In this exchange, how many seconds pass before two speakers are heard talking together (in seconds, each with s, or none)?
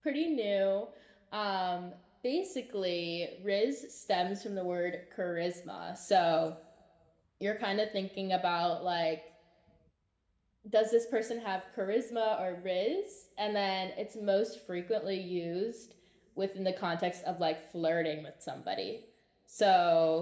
none